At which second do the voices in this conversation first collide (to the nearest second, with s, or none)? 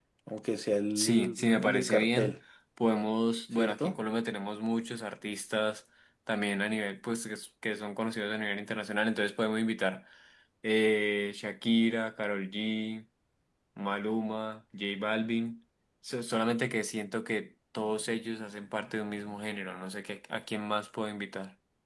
1 s